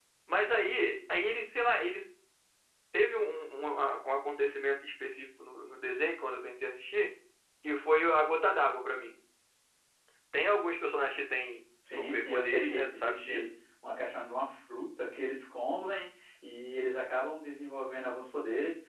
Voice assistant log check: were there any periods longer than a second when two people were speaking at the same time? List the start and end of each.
11.9-13.5

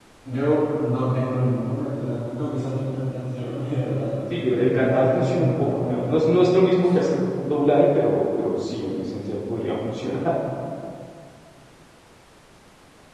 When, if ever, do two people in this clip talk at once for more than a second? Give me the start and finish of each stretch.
4.3-6.4

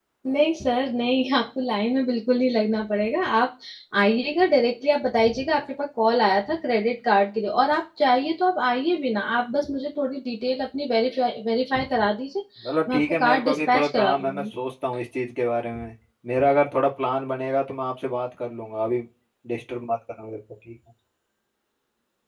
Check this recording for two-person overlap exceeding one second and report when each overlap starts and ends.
12.9-14.4

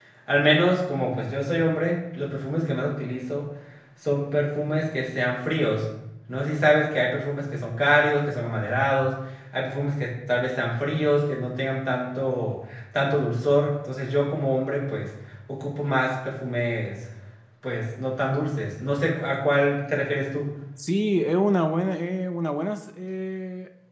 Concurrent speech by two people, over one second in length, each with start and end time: none

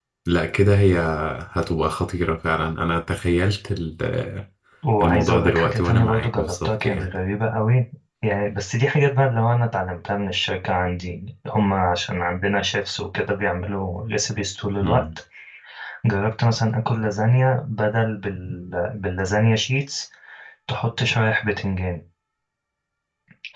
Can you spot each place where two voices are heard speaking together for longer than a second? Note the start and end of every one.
5.0-7.1

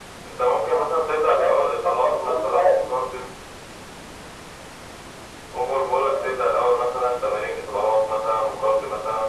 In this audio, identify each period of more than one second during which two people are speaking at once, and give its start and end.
1.4-2.9

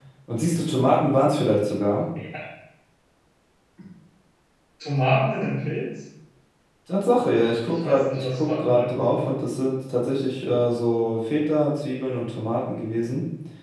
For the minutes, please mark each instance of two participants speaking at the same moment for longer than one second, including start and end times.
7.7-9.3

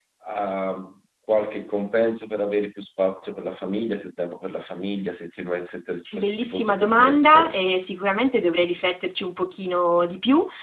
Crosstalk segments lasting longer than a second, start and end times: 6.2-7.5

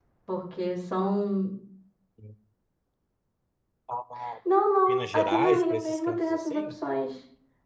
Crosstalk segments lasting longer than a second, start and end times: 4.9-6.6

